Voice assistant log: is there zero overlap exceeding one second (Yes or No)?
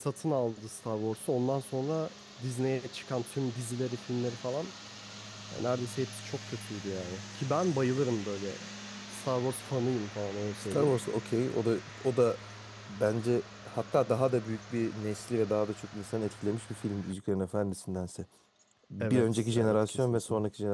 No